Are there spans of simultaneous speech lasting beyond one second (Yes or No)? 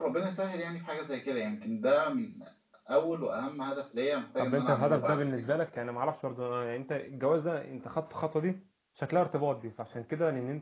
Yes